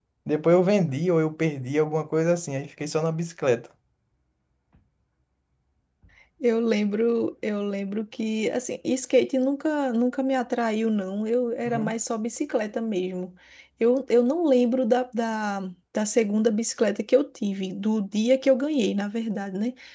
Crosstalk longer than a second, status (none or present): none